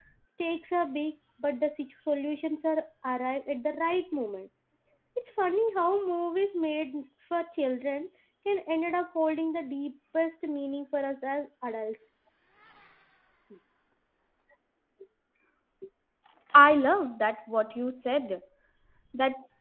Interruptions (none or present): none